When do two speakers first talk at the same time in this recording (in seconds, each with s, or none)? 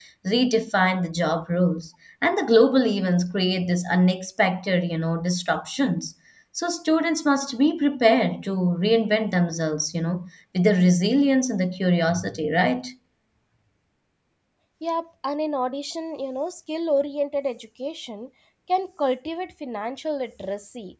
none